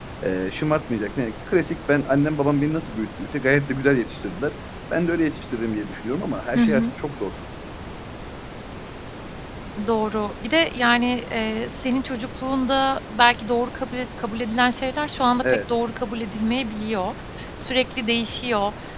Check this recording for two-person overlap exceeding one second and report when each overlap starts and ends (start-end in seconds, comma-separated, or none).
none